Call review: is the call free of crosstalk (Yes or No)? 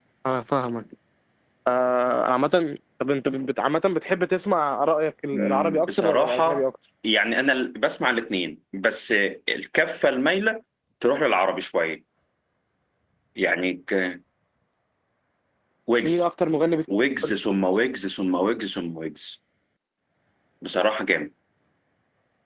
No